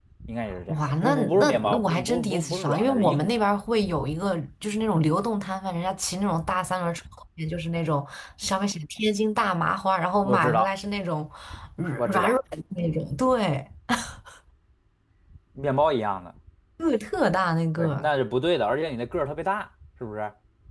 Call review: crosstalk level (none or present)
present